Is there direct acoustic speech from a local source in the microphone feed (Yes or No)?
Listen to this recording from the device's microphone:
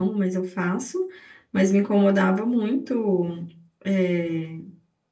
Yes